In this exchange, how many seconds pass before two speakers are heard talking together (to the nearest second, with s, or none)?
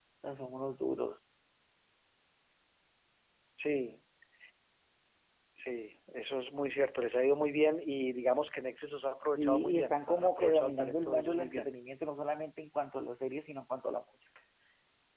9 s